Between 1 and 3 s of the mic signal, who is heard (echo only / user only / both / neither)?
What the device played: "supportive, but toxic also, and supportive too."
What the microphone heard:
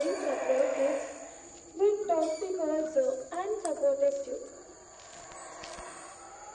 echo only